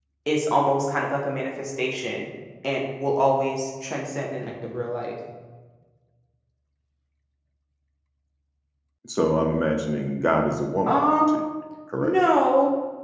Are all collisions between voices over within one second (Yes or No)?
Yes